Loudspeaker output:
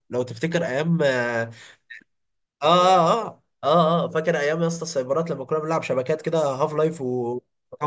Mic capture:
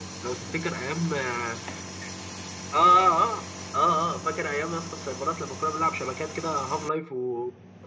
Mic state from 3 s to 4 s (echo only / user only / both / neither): echo only